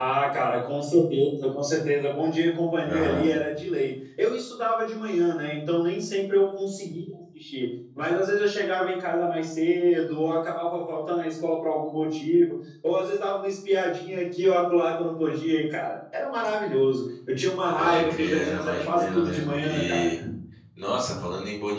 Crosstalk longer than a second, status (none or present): present